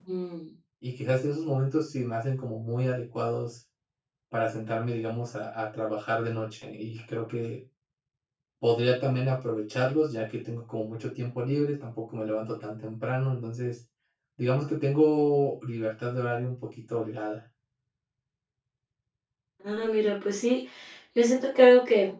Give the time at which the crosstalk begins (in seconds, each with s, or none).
none